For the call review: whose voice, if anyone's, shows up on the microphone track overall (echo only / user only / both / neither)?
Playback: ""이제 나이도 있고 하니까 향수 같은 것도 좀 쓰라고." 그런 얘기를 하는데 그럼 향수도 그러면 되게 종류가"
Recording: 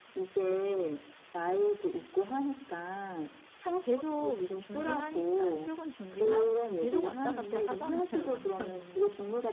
both